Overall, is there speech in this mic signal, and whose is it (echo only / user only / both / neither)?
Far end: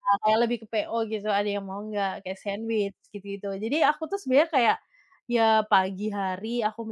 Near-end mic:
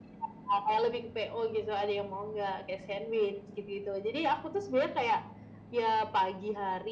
echo only